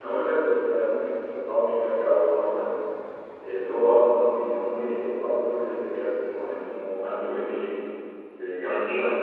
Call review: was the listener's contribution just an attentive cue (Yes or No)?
No